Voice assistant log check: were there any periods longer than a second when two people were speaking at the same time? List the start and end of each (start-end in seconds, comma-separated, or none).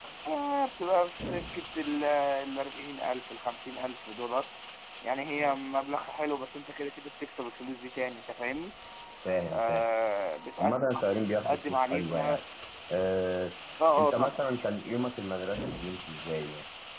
10.6-12.4